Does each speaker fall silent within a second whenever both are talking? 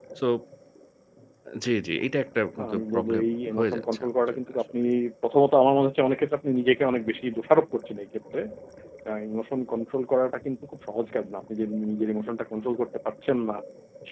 No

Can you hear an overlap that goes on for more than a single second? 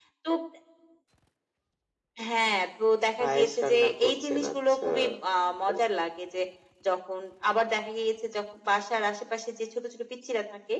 Yes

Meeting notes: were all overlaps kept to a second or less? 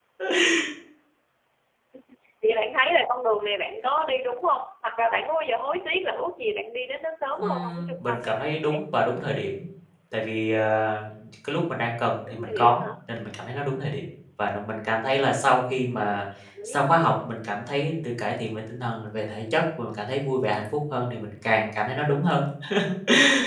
No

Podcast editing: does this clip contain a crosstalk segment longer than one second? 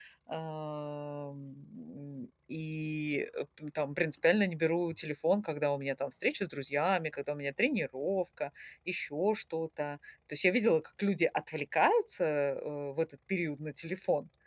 No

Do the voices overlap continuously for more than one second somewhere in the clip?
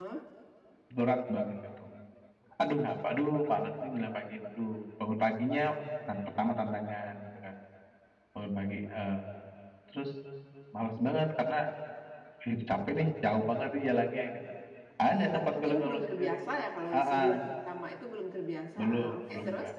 Yes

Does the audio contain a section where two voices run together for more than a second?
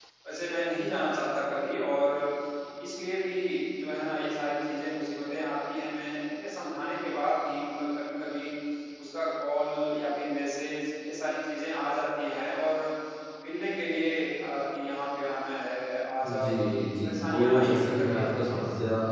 Yes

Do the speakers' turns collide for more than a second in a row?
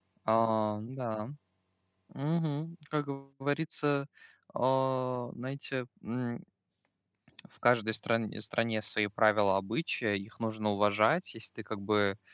No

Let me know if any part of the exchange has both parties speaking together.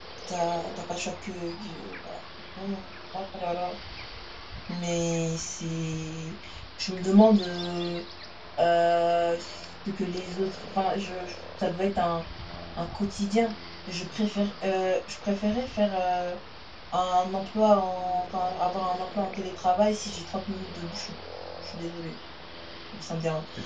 No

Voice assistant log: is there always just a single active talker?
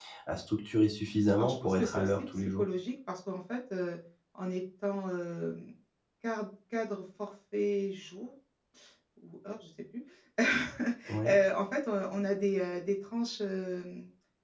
No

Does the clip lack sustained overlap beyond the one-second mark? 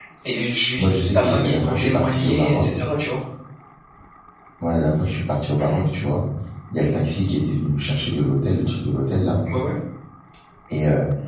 No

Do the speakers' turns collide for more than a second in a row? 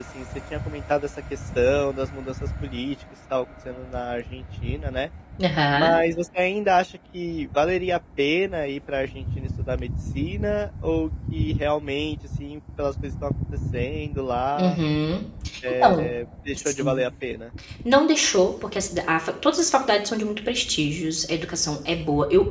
No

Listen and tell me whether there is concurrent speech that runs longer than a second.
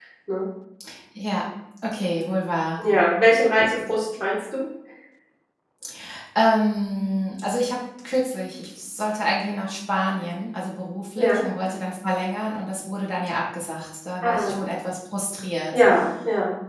No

